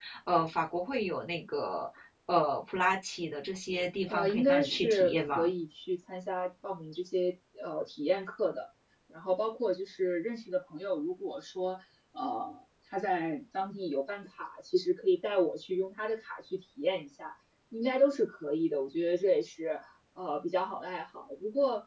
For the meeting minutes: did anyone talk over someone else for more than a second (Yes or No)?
Yes